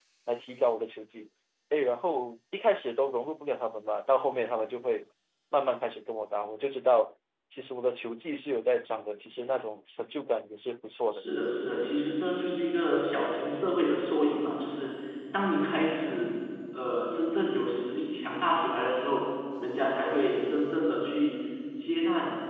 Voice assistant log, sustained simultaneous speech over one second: none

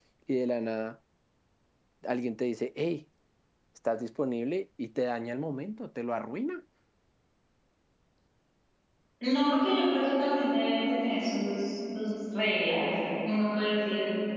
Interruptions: none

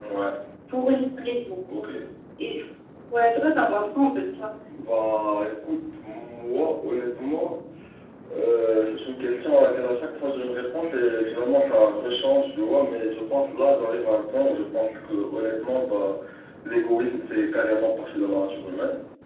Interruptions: none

